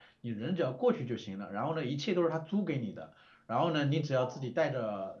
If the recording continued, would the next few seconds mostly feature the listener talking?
No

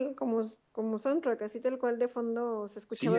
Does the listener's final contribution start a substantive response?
Yes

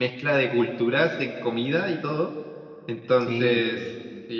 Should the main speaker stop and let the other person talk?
No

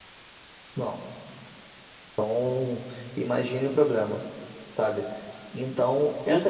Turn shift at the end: Yes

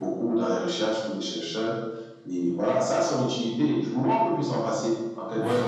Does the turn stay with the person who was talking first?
No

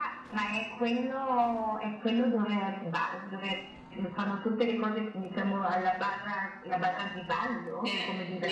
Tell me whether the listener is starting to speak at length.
Yes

